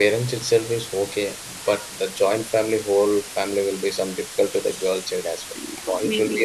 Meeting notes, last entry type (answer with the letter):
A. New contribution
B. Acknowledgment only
A